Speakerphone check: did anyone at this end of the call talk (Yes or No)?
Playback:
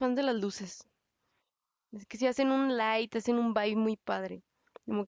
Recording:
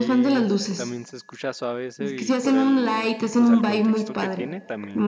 Yes